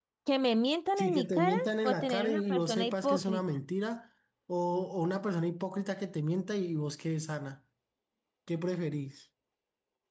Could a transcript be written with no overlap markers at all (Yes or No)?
No